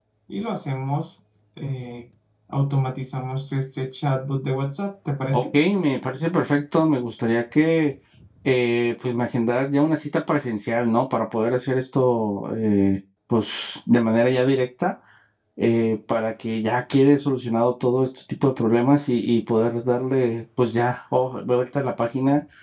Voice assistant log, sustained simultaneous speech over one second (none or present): none